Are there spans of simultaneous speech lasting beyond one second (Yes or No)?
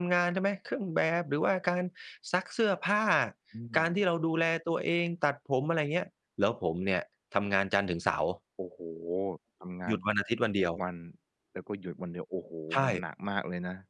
No